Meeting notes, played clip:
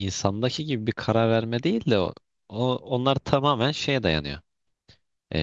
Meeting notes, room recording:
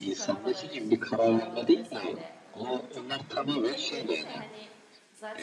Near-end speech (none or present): present